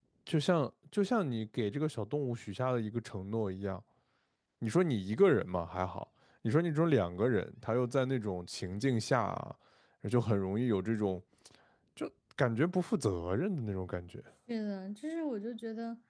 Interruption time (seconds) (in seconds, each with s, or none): none